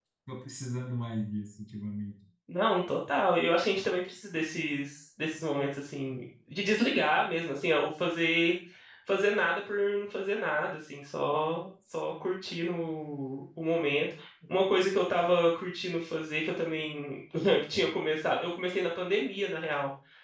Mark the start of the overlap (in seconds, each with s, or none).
none